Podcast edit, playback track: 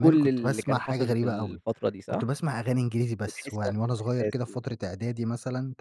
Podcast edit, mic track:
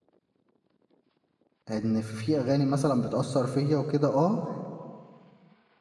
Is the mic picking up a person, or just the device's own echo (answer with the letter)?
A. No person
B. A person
B